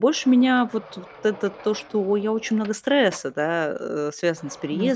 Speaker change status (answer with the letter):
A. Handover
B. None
B